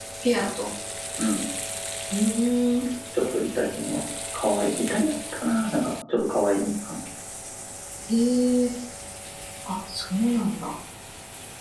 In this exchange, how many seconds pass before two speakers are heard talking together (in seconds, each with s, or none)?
none